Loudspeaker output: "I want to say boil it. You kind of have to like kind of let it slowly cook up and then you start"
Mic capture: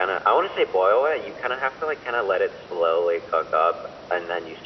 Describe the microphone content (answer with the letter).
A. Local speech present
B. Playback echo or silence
B